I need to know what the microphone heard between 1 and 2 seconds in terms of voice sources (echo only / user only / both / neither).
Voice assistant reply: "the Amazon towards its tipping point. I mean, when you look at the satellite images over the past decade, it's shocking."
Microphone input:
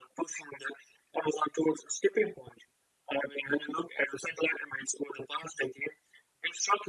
echo only